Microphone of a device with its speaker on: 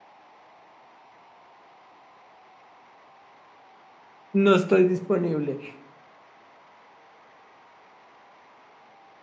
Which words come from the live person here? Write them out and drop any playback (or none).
no estoy disponible.